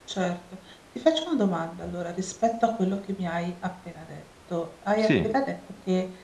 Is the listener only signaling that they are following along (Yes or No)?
Yes